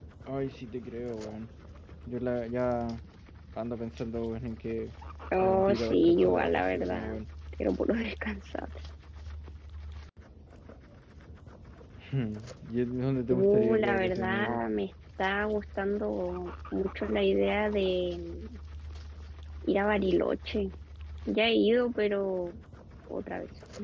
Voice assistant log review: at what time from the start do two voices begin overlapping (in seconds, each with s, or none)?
5.4 s